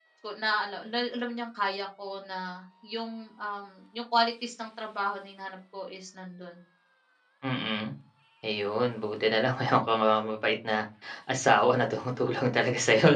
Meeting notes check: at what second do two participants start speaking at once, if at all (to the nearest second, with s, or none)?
none